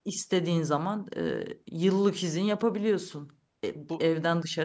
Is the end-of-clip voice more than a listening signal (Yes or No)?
No